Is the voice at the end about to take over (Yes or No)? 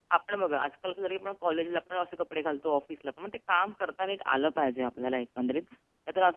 No